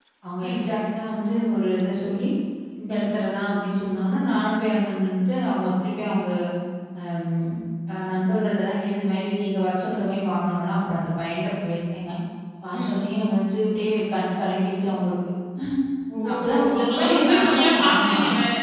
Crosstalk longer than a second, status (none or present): present